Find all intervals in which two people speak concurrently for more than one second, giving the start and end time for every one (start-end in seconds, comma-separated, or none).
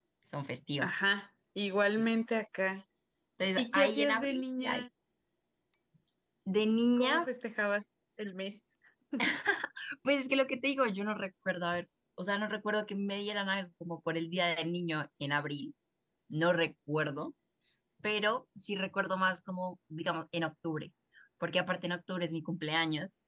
3.6-4.8